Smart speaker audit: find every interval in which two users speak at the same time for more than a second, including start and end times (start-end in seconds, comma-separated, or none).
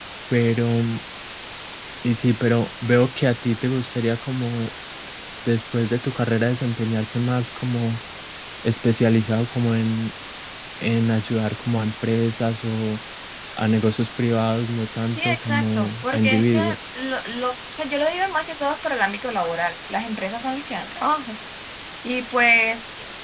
15.1-16.6